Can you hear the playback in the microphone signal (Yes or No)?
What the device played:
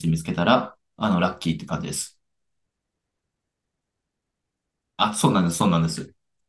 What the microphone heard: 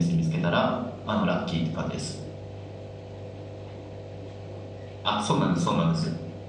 Yes